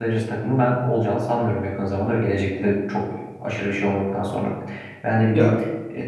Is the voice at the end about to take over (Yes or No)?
No